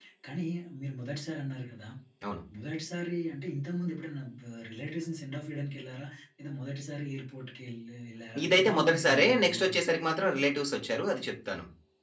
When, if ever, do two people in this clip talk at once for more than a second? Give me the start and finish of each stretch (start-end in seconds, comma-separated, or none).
8.4-9.8